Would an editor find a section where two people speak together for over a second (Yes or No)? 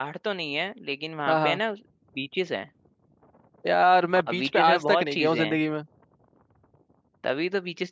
Yes